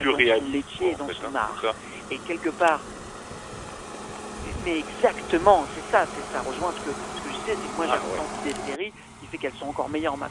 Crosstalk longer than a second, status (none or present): present